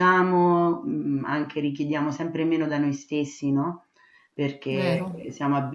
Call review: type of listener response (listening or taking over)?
listening